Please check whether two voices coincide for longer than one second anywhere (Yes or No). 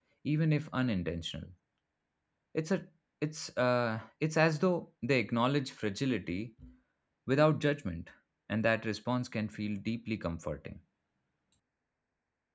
No